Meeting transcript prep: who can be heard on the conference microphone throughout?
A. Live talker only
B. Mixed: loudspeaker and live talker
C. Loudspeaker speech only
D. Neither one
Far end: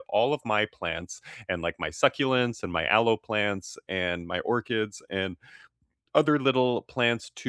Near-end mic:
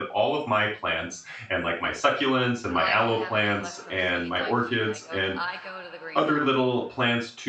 B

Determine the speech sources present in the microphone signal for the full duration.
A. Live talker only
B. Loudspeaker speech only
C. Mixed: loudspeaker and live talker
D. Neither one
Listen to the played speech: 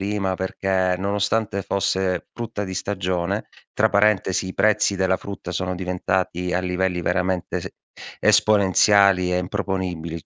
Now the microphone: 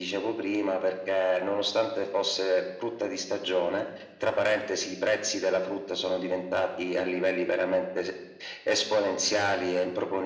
B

